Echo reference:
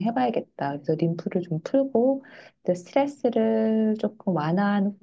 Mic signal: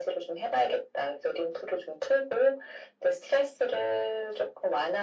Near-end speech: none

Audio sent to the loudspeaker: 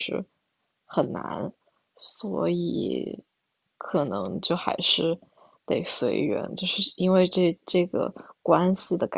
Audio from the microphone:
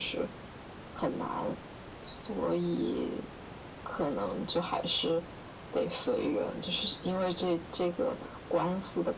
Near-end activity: none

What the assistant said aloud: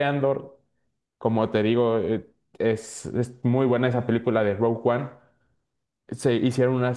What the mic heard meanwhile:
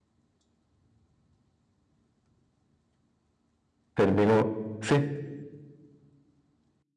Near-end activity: present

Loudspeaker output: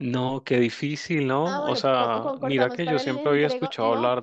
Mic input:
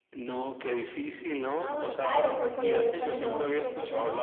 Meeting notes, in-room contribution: present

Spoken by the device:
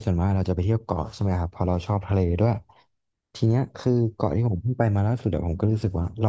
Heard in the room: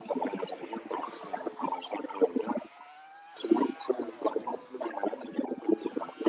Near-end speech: none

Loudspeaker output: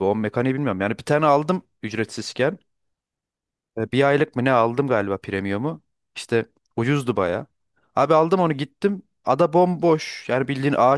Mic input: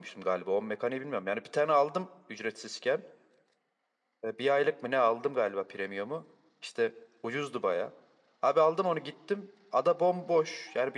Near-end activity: none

